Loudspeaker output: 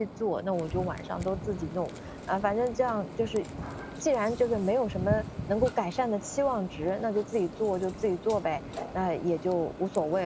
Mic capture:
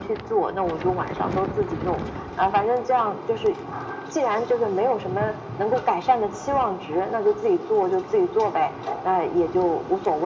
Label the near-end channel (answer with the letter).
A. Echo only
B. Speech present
A